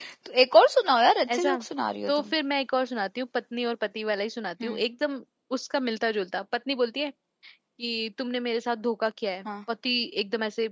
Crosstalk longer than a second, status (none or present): none